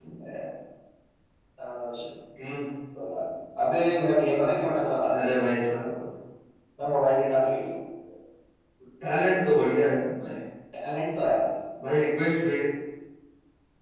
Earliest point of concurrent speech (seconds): none

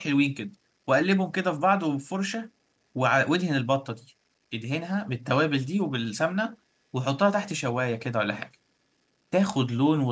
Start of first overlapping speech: none

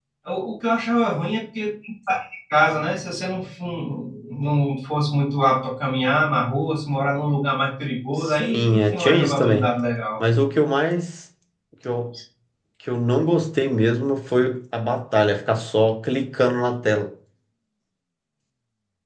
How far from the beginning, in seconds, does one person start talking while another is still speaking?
8.2 s

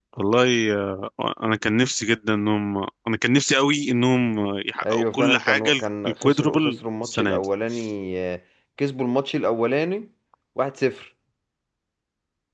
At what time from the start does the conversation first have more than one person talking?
4.8 s

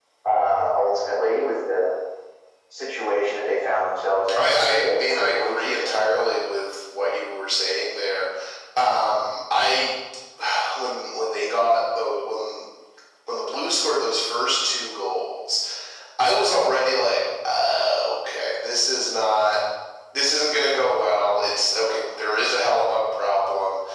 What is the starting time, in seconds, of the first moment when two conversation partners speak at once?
4.3 s

